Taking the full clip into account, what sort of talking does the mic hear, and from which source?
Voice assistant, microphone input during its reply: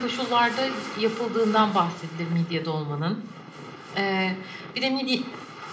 echo only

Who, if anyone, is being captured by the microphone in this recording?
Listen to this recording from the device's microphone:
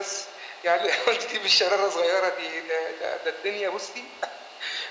echo only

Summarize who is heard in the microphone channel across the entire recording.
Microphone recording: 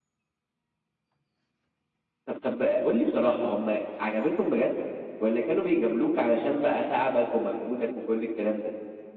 echo only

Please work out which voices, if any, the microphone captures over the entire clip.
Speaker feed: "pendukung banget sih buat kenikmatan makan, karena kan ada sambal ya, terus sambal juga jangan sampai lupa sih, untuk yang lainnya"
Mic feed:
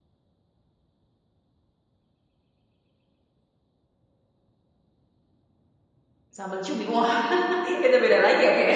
user only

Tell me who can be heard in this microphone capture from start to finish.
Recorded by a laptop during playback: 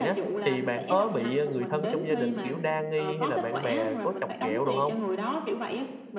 both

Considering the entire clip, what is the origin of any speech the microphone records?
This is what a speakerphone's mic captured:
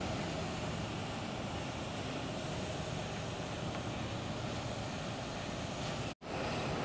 neither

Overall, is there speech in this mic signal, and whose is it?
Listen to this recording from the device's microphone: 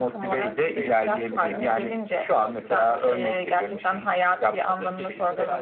both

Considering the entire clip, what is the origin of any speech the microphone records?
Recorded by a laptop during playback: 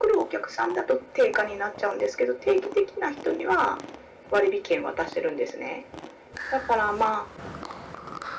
echo only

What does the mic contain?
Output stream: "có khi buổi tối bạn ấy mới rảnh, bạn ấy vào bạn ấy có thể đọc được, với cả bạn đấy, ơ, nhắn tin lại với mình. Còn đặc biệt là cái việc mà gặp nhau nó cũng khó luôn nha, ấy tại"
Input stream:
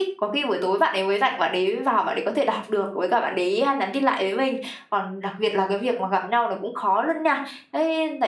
echo only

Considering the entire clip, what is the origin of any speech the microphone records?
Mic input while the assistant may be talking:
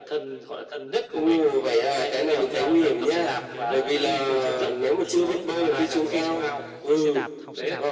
both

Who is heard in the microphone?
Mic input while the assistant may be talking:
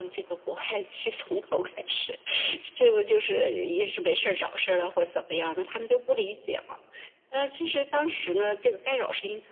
echo only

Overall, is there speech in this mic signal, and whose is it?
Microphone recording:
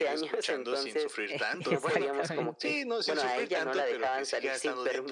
both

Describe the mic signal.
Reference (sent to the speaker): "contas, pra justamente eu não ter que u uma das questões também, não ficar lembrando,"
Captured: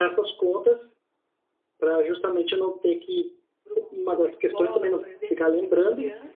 both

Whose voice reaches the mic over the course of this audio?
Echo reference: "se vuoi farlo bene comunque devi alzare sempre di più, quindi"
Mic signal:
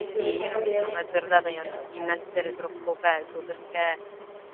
both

